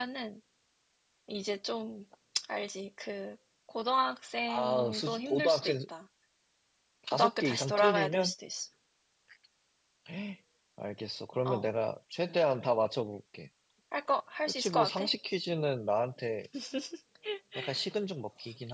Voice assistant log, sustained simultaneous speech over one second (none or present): present